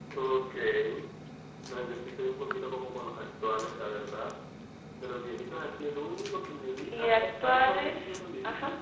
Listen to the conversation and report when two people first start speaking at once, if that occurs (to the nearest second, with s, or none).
7 s